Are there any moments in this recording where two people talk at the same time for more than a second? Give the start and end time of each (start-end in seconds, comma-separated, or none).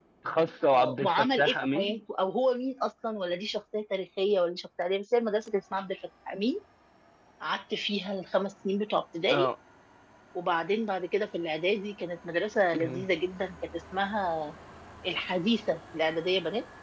0.7-2.0